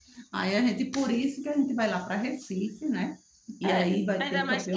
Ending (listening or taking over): taking over